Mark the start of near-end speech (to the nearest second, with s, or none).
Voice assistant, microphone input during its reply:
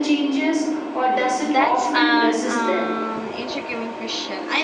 1 s